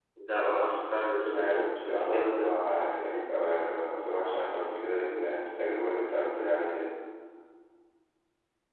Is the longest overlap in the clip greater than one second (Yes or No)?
Yes